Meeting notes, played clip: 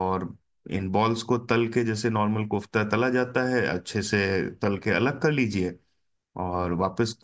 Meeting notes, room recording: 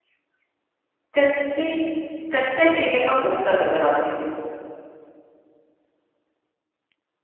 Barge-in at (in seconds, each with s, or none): 1.2 s